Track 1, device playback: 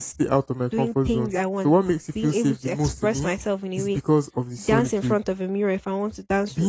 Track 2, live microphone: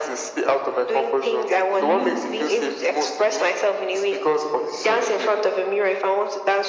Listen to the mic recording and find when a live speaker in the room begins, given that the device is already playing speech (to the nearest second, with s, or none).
2 s